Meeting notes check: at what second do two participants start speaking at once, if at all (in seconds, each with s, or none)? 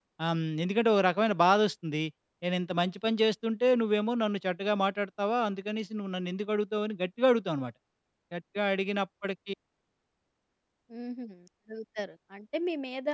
none